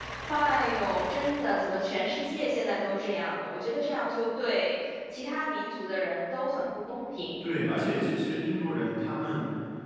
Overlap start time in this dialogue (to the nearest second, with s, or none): none